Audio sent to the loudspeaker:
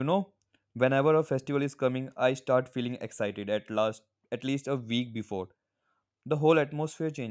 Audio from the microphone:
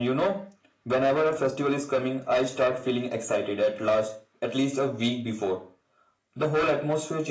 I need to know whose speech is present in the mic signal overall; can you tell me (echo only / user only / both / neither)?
echo only